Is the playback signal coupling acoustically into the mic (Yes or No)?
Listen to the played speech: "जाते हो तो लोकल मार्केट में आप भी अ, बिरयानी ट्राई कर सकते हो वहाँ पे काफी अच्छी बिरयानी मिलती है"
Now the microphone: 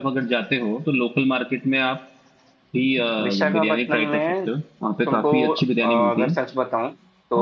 Yes